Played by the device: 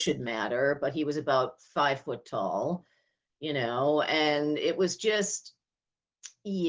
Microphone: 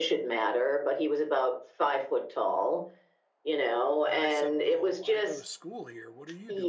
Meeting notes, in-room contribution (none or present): present